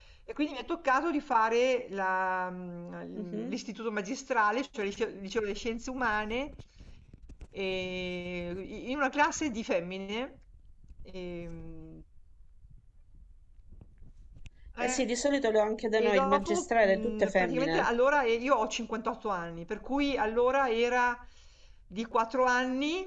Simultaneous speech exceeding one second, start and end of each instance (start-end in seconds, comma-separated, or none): 16.0-17.9